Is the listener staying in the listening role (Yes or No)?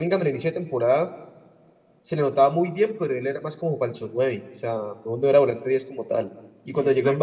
Yes